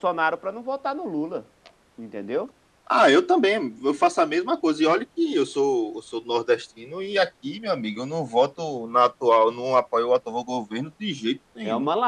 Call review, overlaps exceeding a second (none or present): none